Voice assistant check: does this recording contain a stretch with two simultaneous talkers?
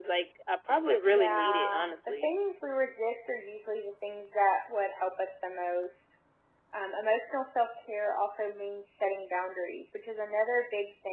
Yes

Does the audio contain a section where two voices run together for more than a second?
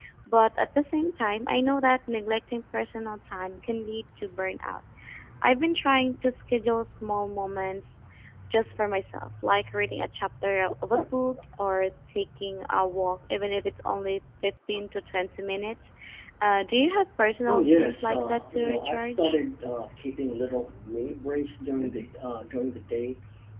Yes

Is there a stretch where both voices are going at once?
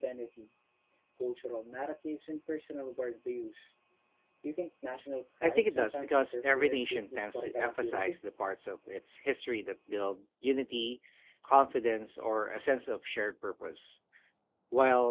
Yes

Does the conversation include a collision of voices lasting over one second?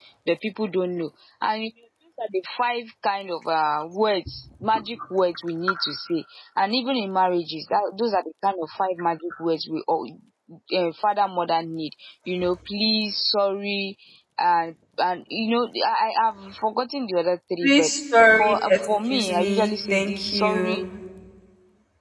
Yes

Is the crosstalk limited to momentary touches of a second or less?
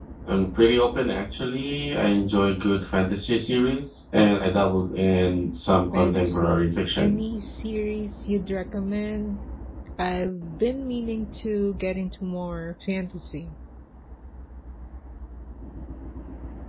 No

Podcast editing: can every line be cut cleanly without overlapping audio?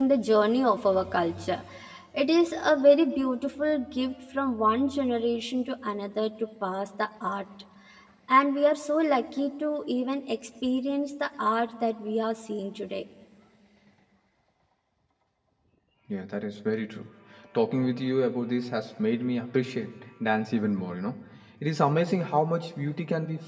Yes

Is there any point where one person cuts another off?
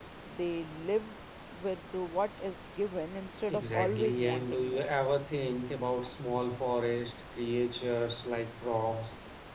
Yes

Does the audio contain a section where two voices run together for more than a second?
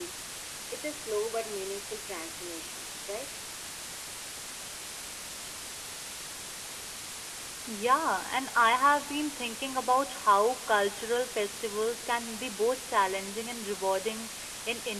No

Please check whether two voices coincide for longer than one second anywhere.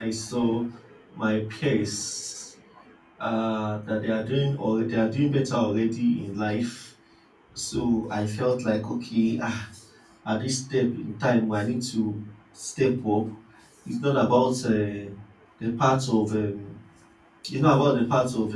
No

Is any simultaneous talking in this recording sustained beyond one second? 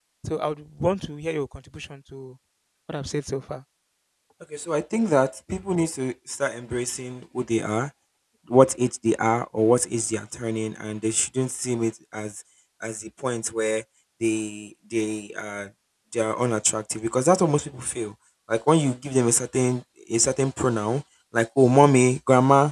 No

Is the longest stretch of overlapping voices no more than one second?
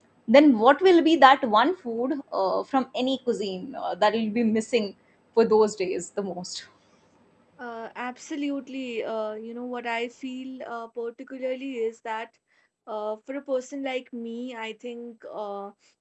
Yes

